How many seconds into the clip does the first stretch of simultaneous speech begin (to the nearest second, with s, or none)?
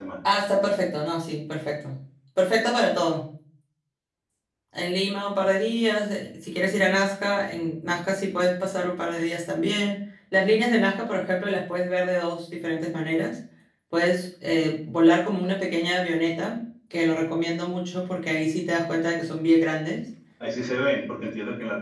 none